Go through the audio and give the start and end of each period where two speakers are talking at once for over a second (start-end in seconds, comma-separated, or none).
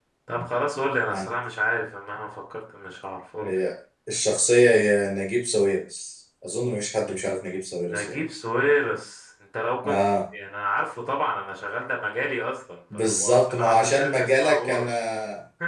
12.9-14.9